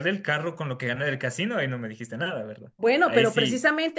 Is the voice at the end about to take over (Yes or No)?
Yes